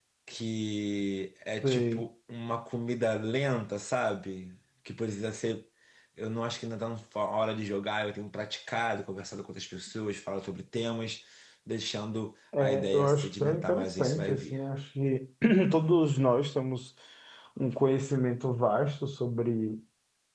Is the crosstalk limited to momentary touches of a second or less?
No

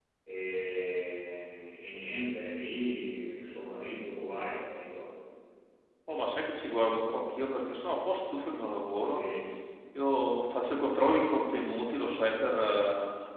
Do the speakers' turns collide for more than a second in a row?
No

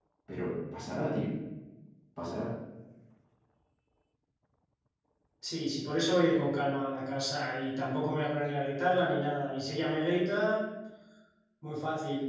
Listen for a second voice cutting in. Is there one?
No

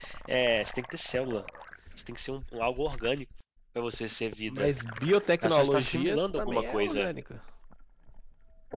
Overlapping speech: Yes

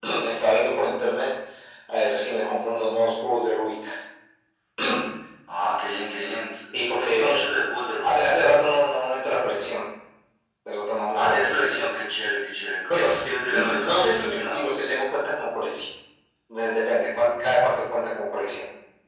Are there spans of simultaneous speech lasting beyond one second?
Yes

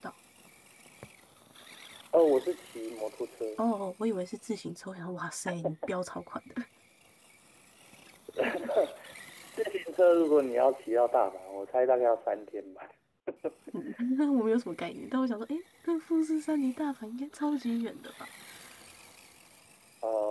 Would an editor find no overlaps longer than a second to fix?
Yes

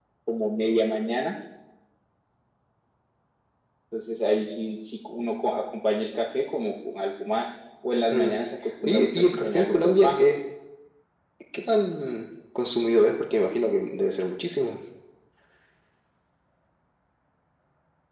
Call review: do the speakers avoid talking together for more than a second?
No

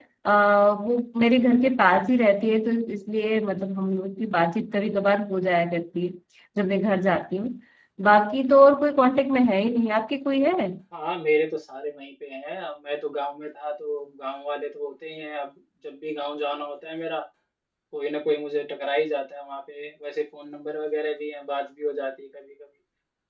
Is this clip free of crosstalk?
Yes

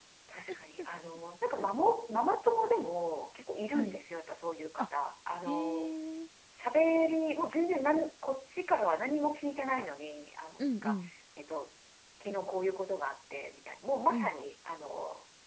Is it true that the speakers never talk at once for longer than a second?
Yes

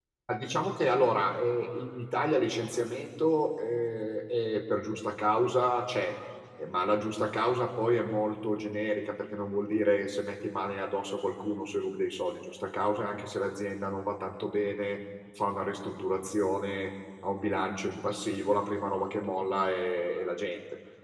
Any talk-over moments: No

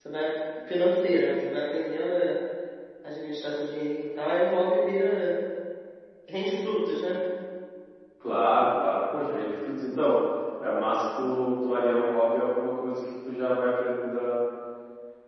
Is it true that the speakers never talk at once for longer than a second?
Yes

